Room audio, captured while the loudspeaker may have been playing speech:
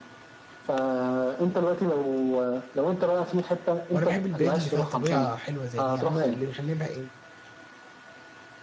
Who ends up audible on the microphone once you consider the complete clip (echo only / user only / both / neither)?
both